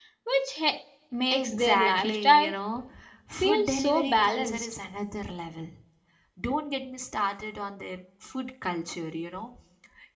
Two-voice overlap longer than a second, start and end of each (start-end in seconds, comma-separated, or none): 1.3-2.5, 3.4-4.7